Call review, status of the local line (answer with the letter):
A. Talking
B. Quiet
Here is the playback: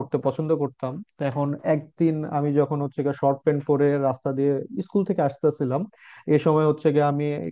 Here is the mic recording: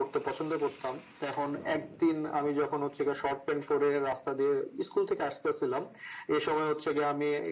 B